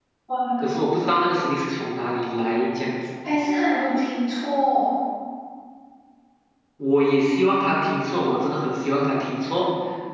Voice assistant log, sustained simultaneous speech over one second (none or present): none